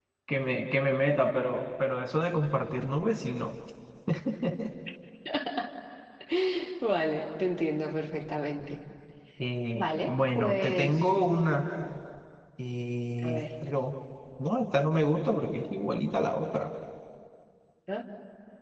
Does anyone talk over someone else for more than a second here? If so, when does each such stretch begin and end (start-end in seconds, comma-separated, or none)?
9.8-11.0